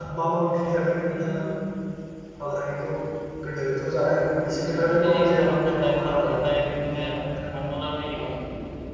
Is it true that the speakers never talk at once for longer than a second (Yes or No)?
No